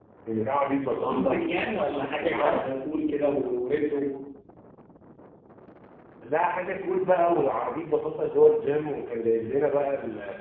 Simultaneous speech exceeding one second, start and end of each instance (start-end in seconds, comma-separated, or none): none